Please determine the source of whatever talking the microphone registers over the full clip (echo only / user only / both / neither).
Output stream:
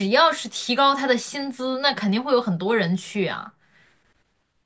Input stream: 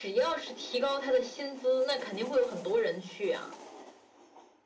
echo only